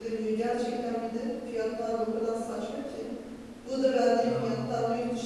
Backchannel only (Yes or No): Yes